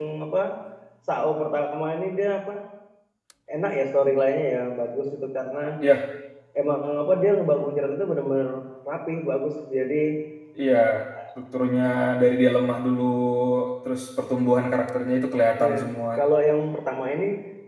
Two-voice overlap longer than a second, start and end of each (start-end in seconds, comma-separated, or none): none